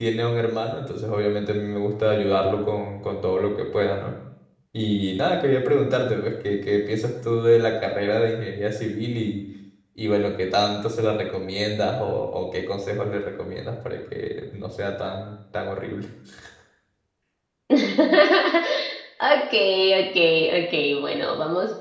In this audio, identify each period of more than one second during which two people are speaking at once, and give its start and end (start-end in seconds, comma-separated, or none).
none